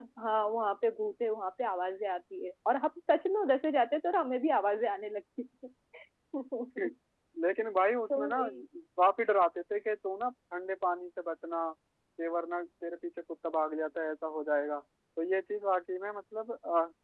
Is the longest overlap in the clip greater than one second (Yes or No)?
No